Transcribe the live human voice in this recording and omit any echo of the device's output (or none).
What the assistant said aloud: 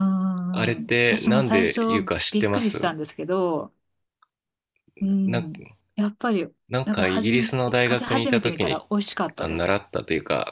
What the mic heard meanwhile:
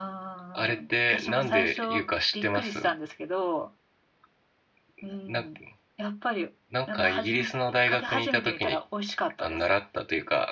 none